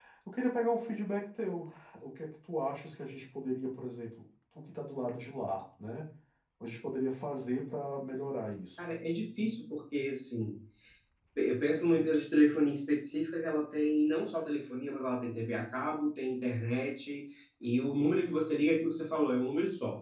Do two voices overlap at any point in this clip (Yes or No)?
No